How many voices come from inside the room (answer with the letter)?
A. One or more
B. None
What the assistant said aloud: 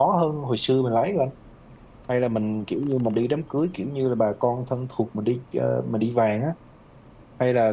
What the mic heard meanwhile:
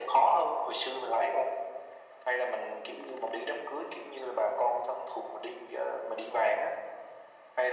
B